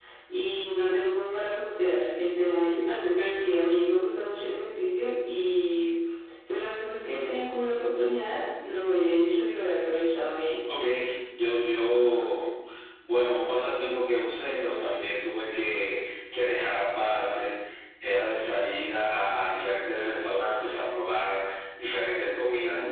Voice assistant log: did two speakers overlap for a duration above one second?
No

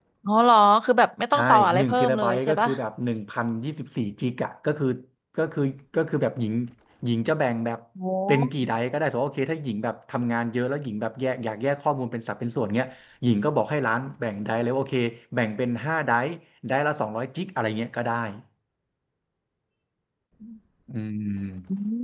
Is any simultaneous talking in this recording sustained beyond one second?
Yes, from 1.3 s

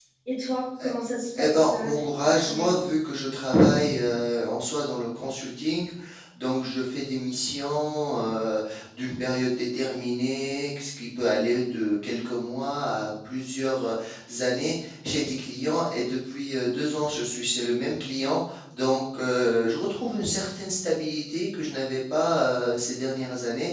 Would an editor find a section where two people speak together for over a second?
Yes, from 1.4 s

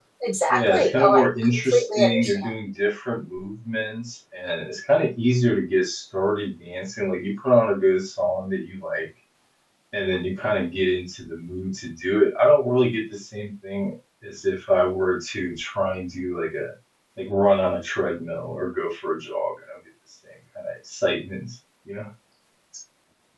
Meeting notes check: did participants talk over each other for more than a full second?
Yes, from 0.5 s

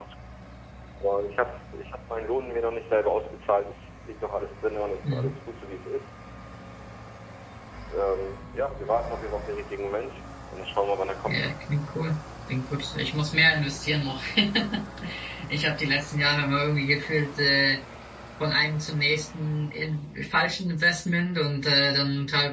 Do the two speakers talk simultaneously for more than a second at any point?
No

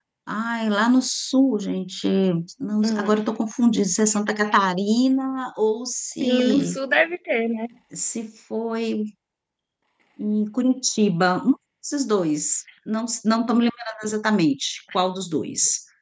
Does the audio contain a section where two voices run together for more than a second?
No

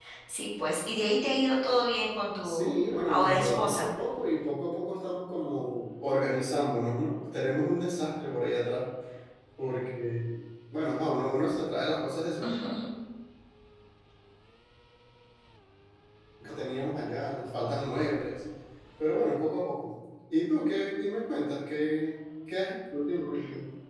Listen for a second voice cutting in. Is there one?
Yes, from 2.4 s

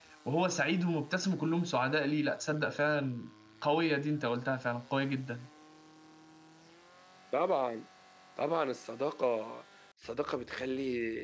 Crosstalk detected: No

